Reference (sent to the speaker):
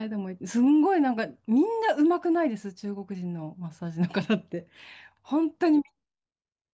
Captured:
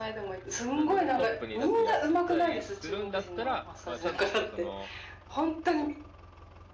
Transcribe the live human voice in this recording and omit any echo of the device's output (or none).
なんだろう、トップに立ってやったりするんだったら、まあ、ちゃんとやっぱその、